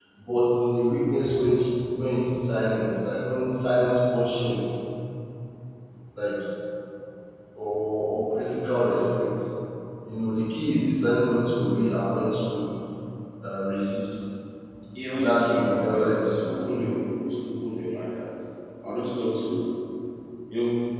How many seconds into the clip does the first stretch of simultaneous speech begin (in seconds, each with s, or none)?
15.2 s